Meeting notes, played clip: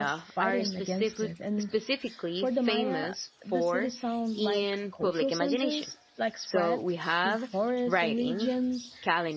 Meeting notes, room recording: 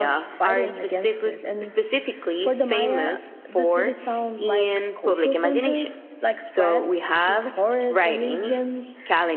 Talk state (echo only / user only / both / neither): echo only